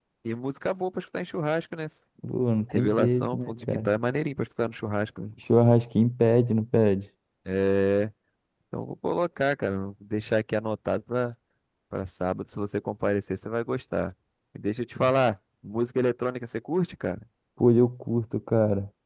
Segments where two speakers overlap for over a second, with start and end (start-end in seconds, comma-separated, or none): 2.7-3.9